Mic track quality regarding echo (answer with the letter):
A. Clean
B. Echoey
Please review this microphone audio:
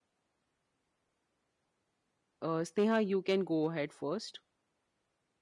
A